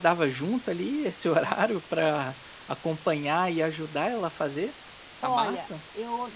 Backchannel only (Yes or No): No